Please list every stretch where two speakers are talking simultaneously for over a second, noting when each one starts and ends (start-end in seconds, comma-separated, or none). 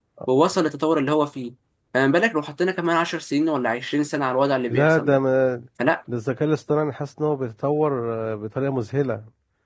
none